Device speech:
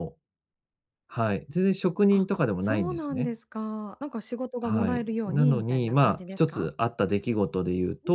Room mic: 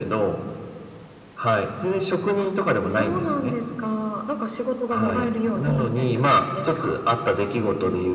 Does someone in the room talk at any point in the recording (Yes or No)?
No